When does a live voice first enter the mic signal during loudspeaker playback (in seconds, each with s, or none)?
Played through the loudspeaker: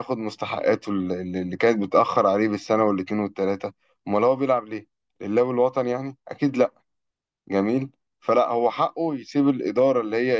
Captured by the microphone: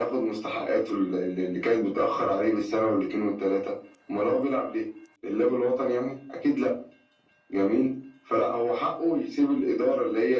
none